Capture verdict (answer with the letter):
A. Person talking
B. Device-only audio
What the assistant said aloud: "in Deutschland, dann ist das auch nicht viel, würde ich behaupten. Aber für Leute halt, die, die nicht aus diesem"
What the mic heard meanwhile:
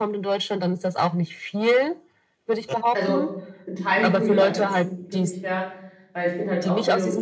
A